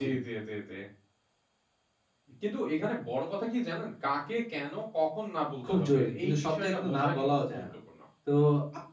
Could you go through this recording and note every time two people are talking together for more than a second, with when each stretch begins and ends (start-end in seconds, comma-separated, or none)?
5.7-7.6